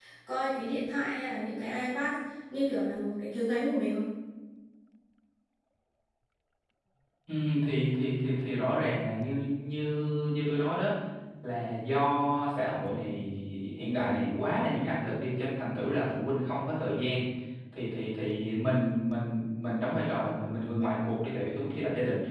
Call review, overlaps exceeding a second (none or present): none